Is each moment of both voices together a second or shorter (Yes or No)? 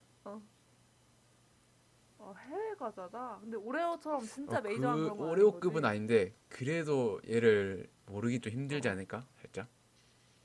No